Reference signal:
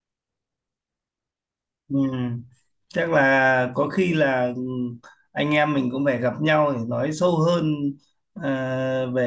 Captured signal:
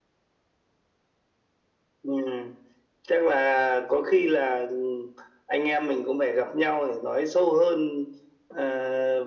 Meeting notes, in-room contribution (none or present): none